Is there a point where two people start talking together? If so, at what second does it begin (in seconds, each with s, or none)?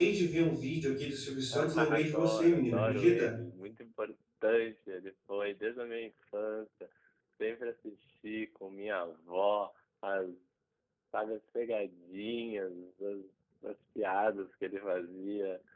1.5 s